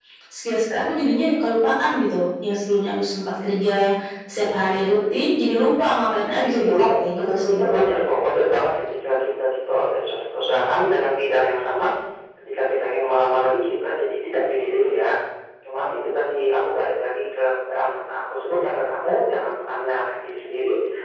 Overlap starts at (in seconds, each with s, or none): 6.4 s